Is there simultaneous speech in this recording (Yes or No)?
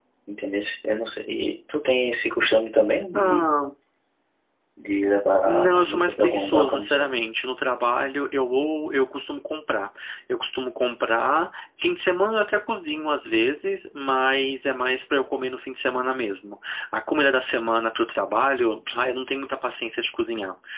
Yes